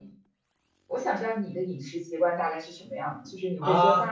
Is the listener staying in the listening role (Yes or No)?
No